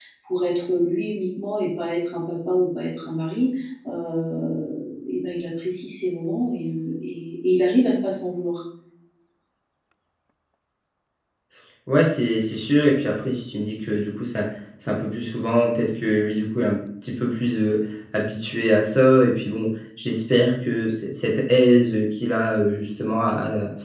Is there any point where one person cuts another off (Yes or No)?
No